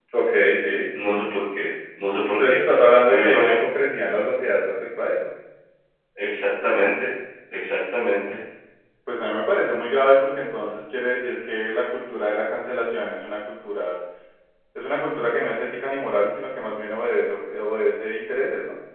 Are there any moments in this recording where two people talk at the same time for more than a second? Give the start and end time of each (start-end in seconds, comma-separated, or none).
none